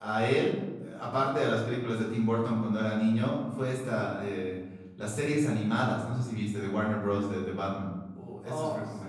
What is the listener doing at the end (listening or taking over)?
taking over